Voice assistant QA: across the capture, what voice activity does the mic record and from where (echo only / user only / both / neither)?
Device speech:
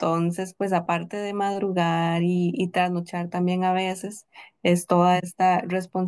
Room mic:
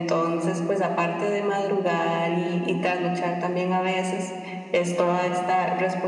echo only